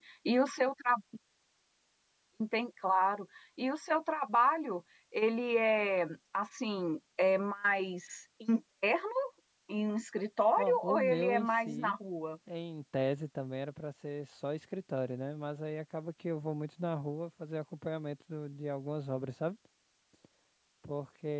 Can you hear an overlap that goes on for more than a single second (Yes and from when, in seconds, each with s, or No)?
Yes, from 10.6 s